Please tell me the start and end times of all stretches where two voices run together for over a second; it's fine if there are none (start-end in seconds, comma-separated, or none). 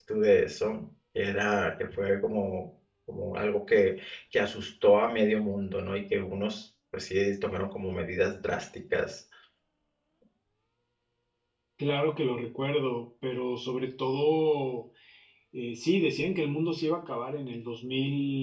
none